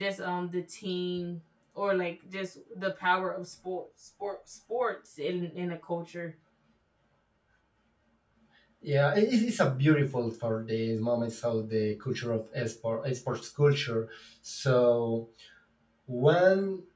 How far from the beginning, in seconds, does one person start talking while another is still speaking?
none

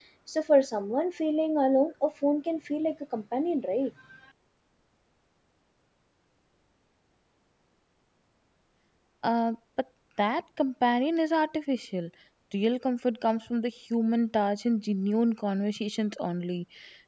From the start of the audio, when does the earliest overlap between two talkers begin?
none

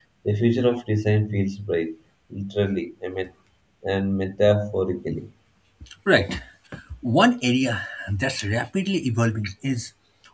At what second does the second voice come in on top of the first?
none

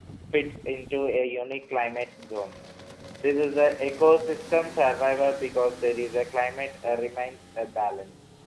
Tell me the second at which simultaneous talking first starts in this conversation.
none

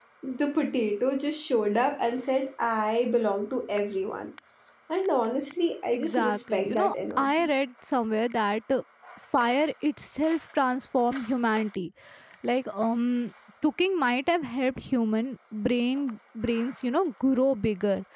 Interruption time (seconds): 5.9 s

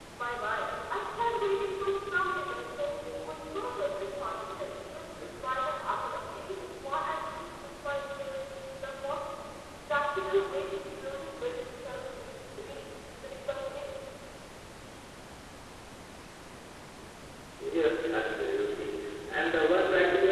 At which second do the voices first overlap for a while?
none

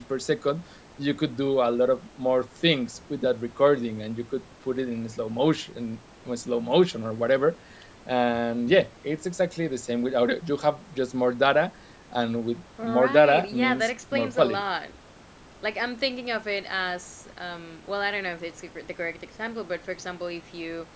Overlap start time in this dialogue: 12.8 s

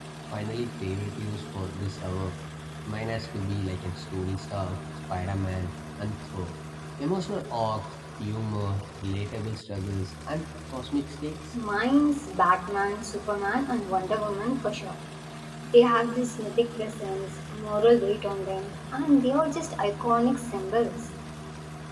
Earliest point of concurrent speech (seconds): none

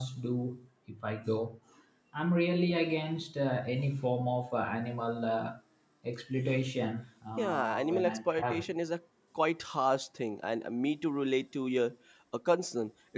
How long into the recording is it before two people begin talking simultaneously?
7.4 s

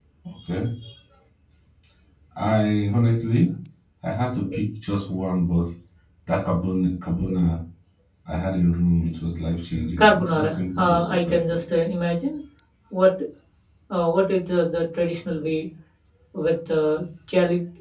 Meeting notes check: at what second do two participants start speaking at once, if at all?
10.0 s

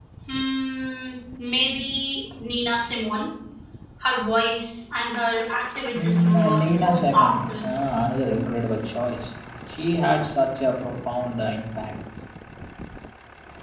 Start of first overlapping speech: 5.9 s

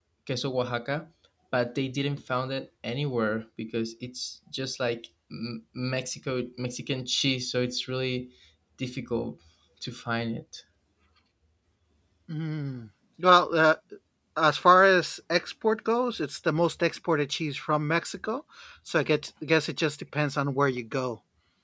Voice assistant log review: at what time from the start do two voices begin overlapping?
none

